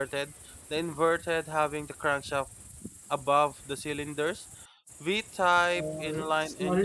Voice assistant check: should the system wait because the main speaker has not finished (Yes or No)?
No